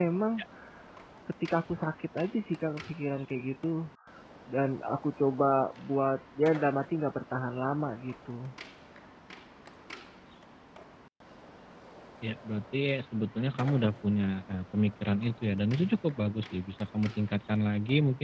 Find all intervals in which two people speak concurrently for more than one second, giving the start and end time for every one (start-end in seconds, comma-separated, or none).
none